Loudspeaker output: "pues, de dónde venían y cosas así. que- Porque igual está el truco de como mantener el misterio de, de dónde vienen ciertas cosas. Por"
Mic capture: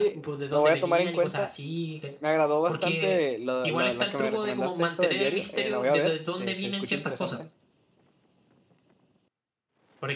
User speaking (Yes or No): Yes